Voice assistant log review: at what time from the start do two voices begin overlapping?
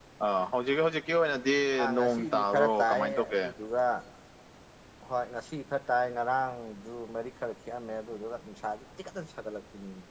2.0 s

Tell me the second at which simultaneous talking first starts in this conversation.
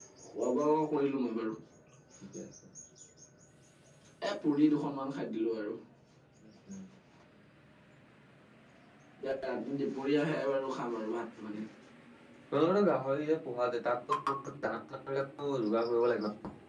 none

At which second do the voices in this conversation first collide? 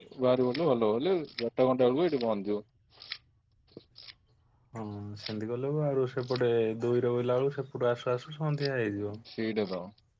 none

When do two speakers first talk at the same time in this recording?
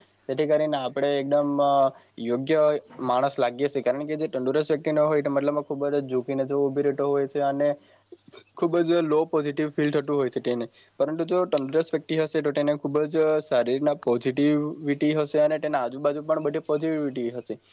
none

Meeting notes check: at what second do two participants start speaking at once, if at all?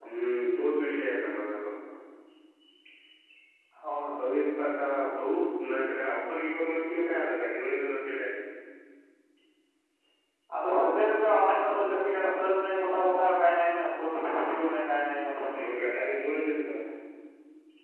none

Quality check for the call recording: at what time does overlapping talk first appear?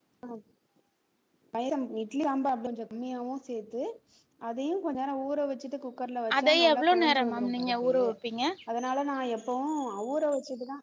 6.3 s

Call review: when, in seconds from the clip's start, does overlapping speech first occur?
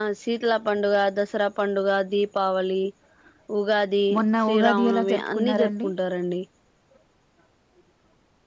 4.5 s

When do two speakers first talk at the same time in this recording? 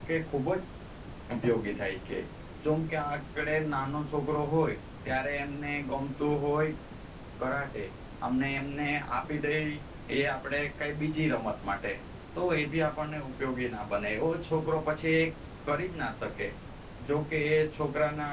none

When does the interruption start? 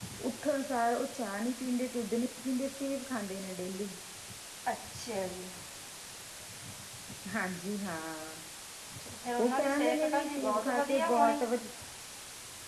9.4 s

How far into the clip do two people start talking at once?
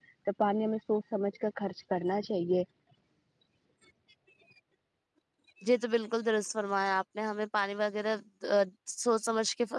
none

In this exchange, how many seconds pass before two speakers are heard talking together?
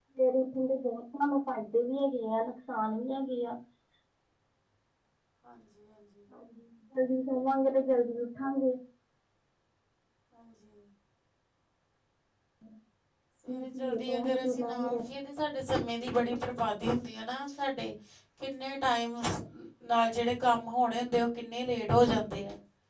13.5 s

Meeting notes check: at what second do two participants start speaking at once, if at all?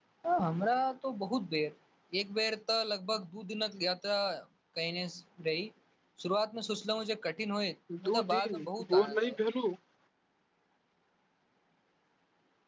7.9 s

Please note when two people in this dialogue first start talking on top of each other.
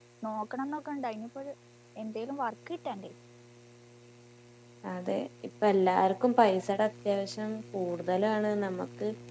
none

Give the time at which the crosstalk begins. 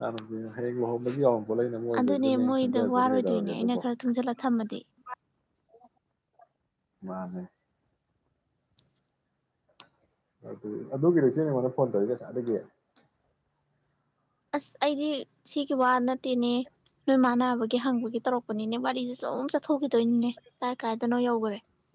1.9 s

